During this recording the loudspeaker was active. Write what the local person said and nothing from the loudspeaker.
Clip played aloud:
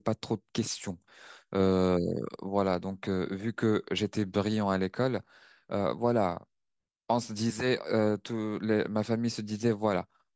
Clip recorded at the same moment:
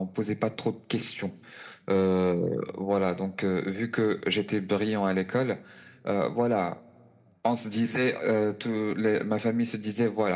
none

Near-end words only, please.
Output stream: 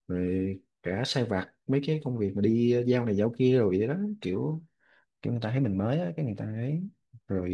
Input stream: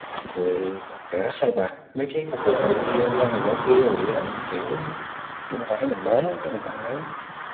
bởi hôm ờ, mới ờ,

